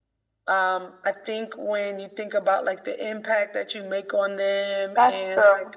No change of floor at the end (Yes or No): Yes